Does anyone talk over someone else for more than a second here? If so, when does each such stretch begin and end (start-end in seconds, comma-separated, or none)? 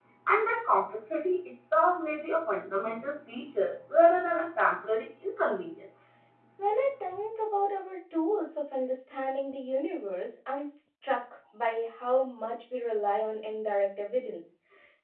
none